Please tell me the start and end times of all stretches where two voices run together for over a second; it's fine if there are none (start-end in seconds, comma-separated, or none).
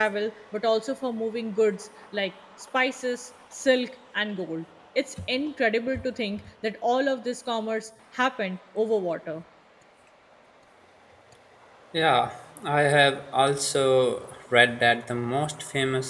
none